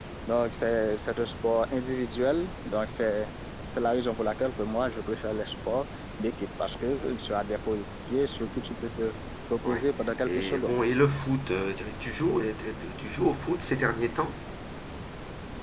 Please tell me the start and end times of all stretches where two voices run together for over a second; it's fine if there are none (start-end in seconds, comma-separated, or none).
none